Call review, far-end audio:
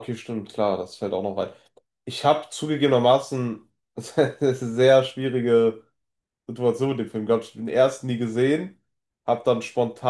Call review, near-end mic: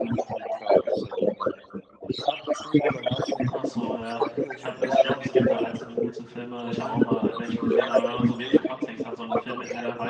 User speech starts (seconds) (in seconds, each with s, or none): 3.5 s